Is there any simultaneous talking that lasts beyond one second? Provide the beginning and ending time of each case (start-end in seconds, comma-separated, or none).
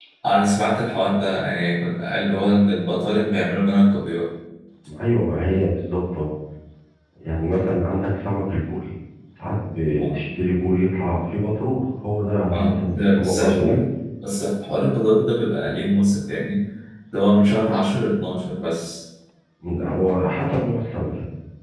12.5-13.8